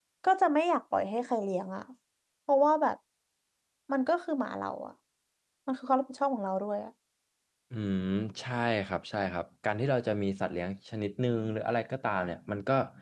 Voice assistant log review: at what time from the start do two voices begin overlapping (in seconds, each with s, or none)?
none